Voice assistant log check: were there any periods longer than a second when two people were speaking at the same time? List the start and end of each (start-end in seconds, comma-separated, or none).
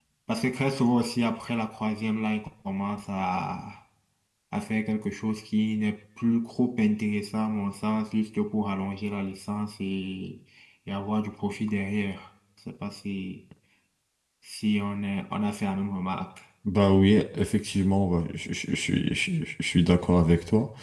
none